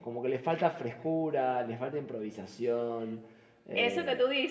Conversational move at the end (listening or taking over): taking over